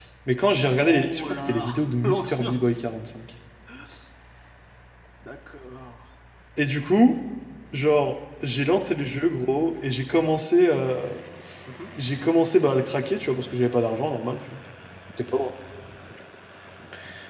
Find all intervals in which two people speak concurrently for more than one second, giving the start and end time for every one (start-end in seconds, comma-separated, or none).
0.8-2.6